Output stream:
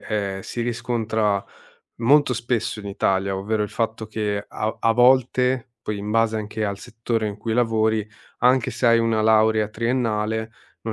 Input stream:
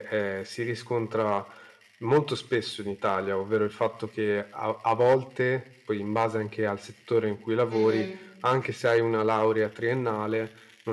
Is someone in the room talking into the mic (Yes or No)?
Yes